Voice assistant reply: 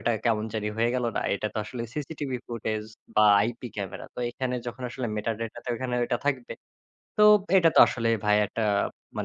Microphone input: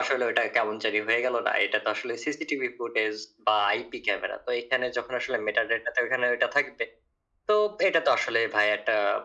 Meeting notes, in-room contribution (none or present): none